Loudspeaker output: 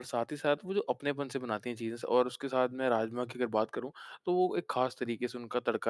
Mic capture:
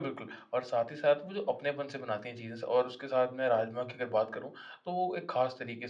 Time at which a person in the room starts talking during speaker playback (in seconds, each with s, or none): none